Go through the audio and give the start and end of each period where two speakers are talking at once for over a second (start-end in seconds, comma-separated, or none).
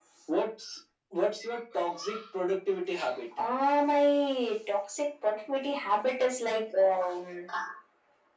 none